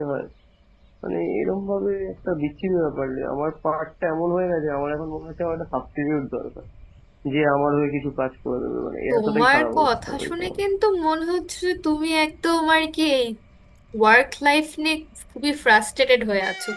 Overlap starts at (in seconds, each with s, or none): 9.1 s